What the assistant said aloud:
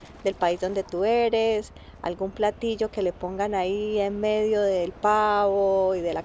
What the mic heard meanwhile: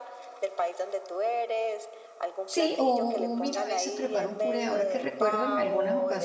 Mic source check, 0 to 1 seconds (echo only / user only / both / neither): echo only